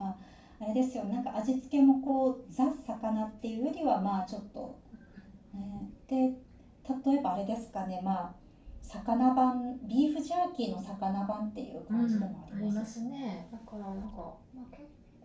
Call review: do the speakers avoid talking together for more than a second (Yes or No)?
No